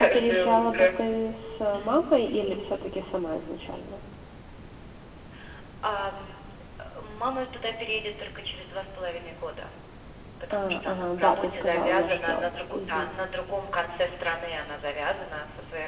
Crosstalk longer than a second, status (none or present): present